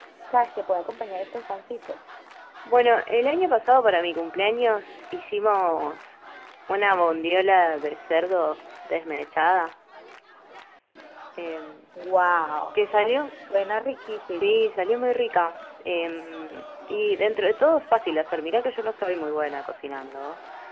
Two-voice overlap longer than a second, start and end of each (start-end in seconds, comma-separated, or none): none